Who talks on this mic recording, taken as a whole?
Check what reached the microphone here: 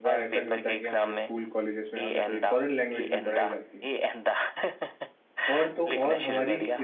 both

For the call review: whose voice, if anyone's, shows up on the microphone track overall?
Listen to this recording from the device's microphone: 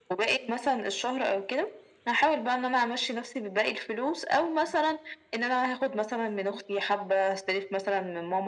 echo only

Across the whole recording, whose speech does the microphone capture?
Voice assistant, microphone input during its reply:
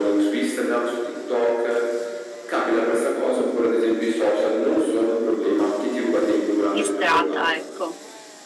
both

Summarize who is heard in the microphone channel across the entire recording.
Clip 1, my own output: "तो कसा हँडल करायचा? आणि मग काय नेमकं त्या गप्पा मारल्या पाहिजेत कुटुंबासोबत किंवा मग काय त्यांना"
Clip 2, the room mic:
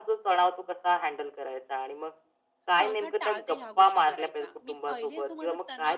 both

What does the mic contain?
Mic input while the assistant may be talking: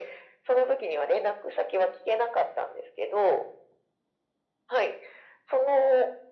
echo only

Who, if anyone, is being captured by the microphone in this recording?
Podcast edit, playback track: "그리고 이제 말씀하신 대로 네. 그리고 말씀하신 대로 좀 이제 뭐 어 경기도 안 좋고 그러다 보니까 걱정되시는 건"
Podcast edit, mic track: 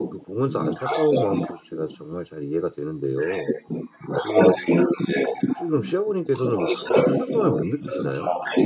both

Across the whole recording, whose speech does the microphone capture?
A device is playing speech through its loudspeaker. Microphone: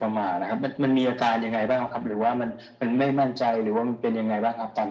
echo only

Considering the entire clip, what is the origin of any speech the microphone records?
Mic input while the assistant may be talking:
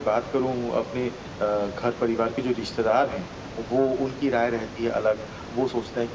echo only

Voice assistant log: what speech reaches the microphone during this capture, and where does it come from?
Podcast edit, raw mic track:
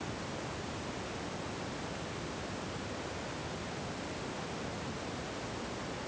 neither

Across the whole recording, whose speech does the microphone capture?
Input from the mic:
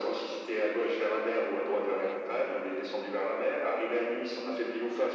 both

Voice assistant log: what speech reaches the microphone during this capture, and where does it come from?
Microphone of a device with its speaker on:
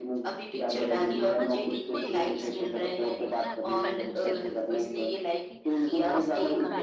both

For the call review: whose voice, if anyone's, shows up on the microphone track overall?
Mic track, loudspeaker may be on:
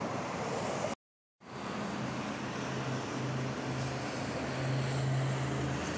neither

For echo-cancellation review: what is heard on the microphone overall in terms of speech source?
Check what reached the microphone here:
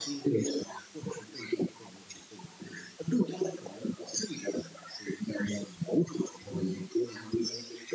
echo only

